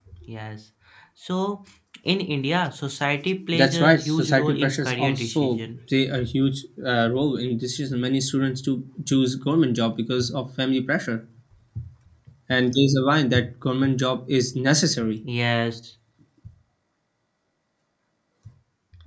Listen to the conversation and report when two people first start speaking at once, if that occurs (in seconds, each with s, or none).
3.5 s